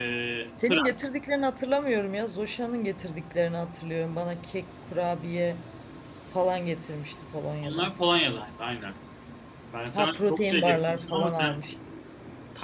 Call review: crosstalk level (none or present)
present